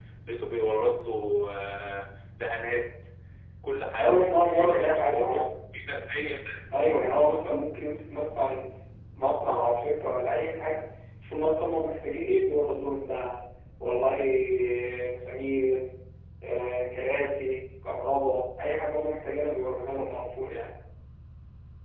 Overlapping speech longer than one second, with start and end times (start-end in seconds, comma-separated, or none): 4.0-5.4